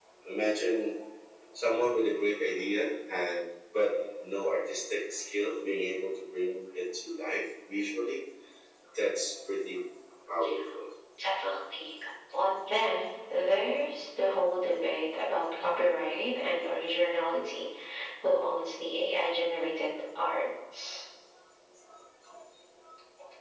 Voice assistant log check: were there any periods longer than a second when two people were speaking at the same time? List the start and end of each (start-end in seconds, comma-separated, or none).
none